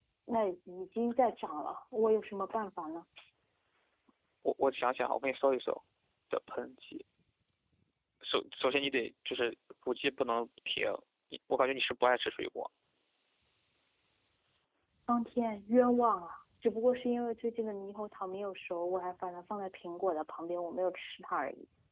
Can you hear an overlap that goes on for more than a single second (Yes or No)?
No